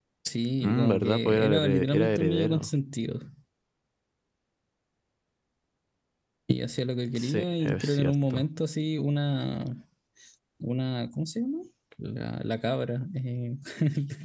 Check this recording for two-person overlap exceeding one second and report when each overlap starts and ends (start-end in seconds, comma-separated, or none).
0.6-2.7, 7.2-8.4